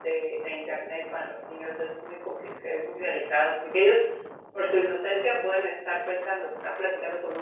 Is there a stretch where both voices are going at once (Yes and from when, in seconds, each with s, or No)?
No